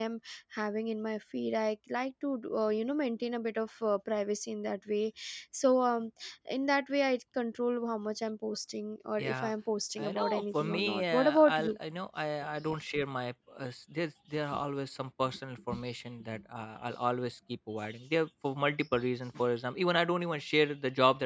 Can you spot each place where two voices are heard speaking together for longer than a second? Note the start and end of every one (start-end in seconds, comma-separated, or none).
10.0-11.8